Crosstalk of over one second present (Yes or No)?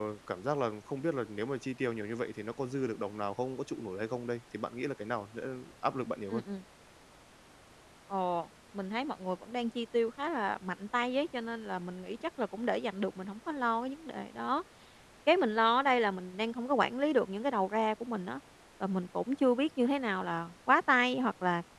No